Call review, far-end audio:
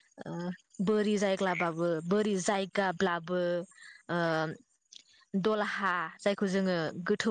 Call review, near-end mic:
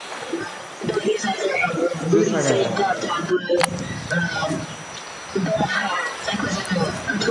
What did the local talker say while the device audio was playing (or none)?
जोसा गाया